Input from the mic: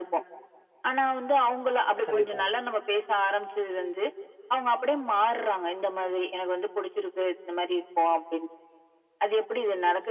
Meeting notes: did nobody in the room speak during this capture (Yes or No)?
No